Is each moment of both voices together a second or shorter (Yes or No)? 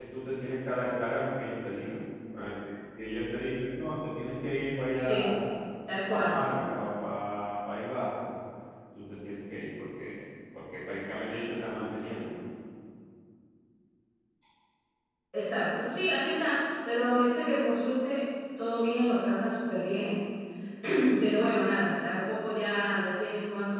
Yes